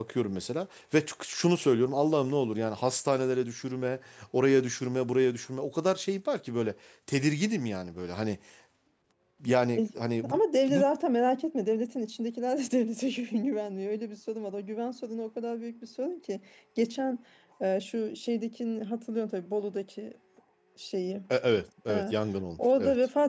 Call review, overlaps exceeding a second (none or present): none